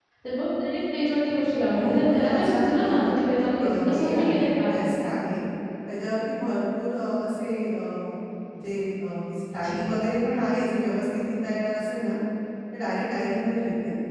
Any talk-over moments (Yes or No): Yes